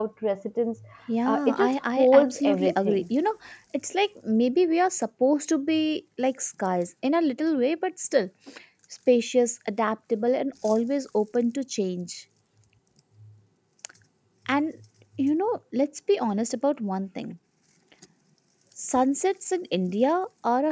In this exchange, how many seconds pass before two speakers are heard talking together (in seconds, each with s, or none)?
1.3 s